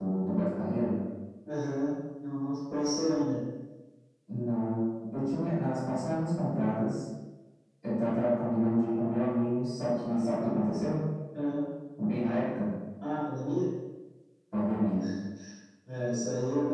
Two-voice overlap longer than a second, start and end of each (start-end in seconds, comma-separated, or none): none